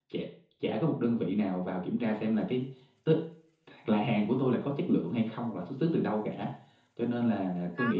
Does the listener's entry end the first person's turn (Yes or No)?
No